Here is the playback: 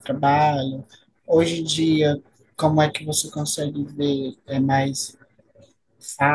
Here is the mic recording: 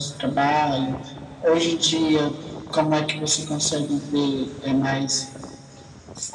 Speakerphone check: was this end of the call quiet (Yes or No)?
Yes